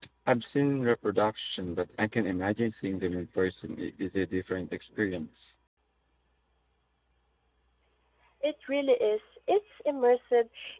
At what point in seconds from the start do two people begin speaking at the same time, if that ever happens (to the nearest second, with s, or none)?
none